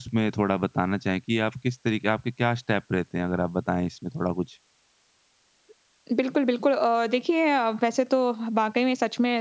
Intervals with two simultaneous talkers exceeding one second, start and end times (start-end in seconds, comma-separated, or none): none